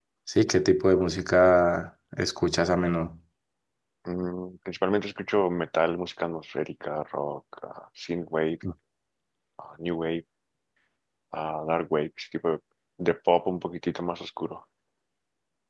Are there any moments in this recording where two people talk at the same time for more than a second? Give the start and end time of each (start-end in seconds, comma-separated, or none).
none